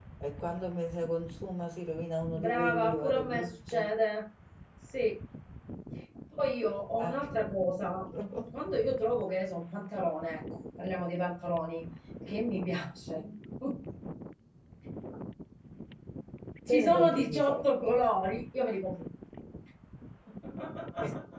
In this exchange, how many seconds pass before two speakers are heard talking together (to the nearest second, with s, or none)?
2 s